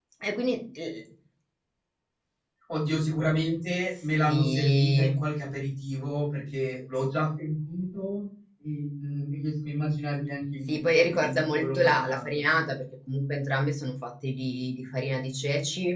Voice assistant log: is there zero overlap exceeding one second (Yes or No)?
No